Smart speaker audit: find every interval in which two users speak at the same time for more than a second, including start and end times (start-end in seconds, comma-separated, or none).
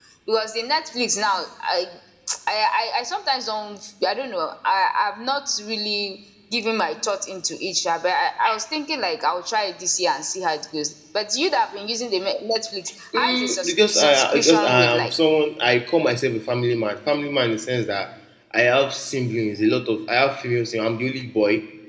13.1-15.1